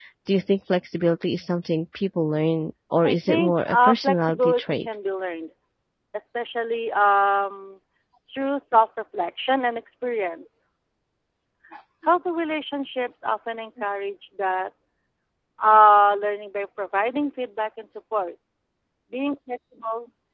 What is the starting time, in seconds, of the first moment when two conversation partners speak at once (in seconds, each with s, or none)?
3.0 s